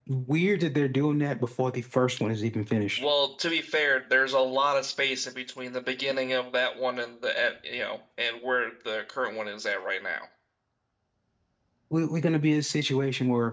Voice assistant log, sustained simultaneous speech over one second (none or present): none